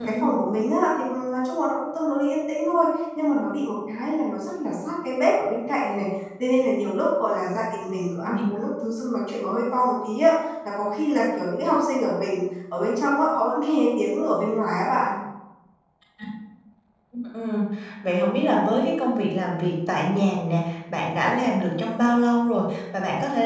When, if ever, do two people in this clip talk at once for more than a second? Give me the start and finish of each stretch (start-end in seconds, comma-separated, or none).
none